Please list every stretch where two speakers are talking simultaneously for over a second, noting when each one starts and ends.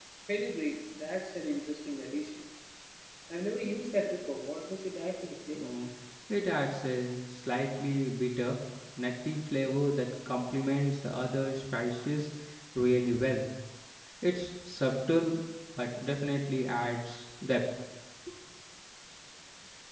none

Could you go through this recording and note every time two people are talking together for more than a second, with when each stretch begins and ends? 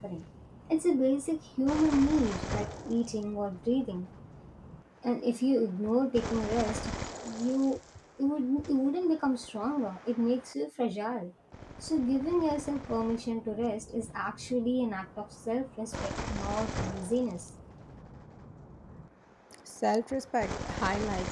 none

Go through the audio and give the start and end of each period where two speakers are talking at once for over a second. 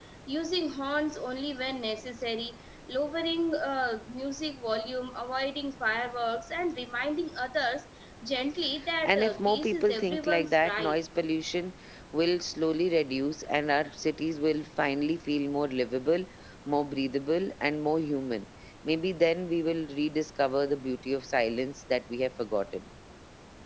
9.0-11.0

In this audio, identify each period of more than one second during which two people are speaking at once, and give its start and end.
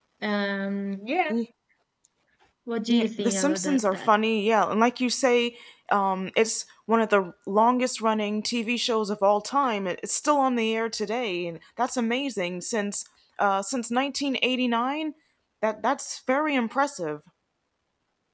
2.9-4.1

